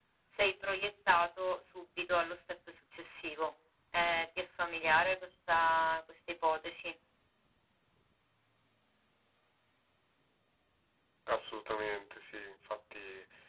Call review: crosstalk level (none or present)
none